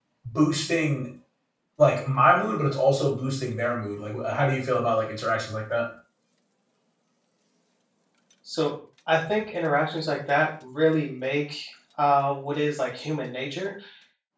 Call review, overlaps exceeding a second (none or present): none